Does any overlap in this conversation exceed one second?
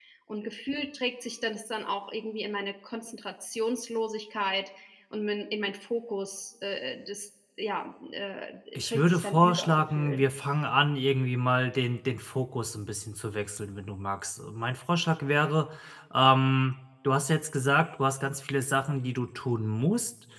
Yes, from 8.8 s

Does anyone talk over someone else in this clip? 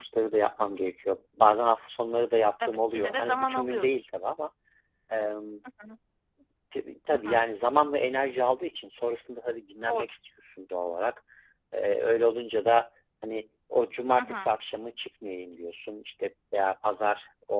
Yes, from 2.6 s

